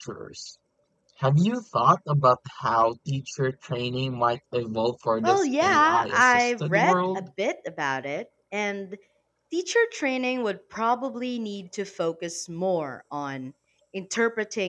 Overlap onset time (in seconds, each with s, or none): 5.2 s